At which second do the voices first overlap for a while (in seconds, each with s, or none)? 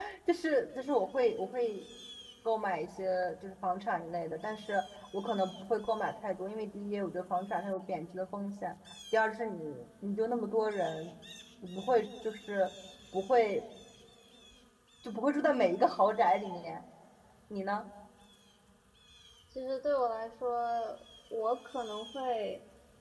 none